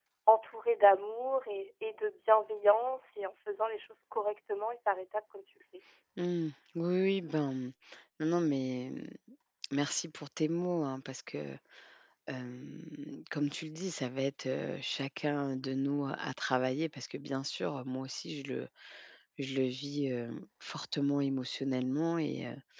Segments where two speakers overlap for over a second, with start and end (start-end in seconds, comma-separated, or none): none